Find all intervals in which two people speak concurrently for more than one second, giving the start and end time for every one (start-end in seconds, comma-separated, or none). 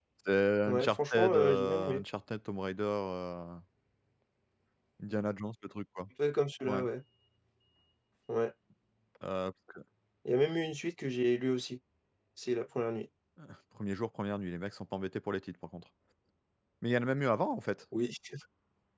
0.7-2.0